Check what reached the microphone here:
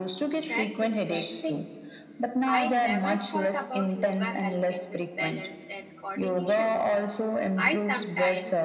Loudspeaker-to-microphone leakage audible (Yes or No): Yes